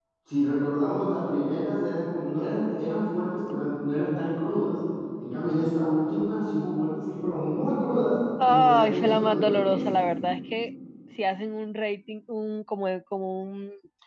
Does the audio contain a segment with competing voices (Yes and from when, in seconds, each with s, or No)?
Yes, from 8.4 s